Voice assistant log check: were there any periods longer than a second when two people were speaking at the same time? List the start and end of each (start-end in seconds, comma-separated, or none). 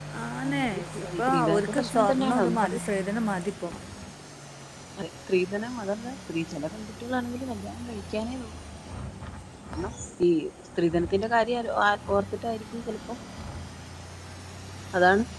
1.3-2.8